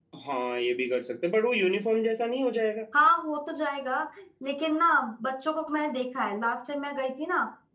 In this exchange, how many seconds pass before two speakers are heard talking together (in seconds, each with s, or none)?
none